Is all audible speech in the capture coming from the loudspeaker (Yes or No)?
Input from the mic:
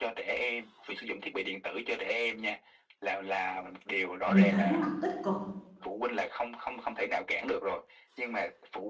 No